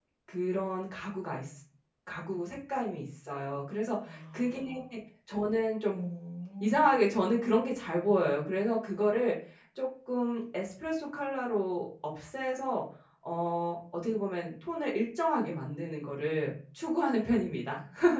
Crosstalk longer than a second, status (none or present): none